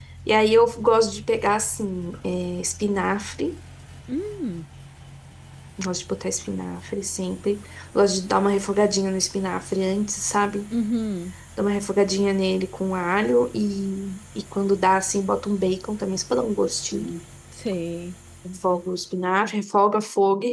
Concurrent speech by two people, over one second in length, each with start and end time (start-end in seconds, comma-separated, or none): none